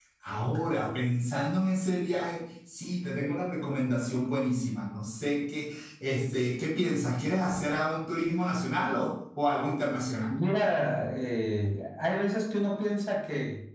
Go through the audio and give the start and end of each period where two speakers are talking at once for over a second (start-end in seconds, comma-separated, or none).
none